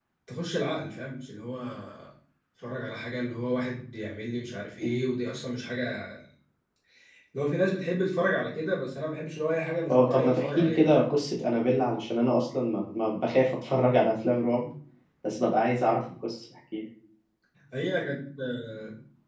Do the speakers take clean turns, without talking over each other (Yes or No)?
No